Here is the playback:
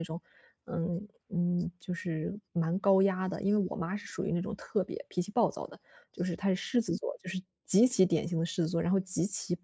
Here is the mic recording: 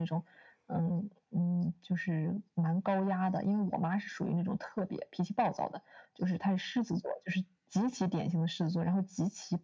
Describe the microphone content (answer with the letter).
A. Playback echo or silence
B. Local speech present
A